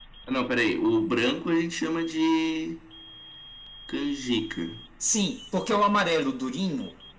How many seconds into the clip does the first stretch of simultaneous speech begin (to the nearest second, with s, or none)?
none